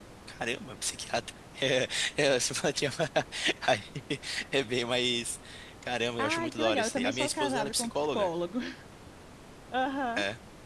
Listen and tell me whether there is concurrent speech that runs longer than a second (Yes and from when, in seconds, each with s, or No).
Yes, from 6.2 s